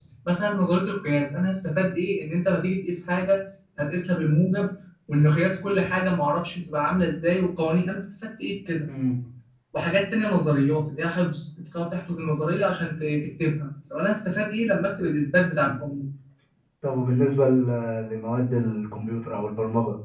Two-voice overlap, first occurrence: none

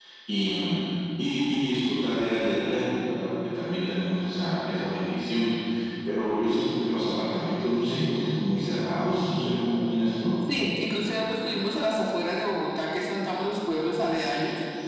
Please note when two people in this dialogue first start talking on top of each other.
none

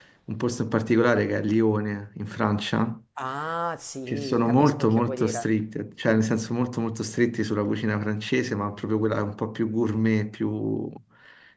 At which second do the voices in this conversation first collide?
4.1 s

